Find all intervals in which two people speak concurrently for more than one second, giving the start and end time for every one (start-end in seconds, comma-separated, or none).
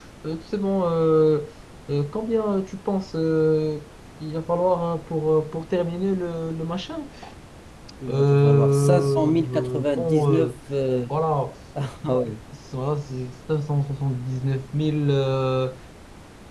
8.1-10.6